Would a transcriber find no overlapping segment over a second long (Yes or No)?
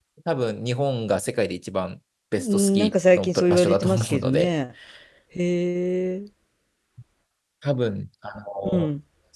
No